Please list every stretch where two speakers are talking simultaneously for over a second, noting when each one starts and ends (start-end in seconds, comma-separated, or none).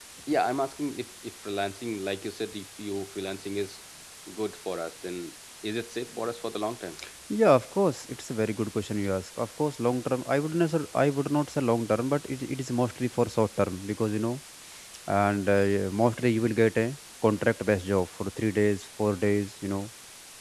none